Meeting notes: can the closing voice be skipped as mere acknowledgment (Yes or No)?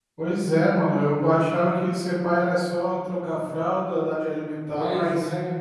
Yes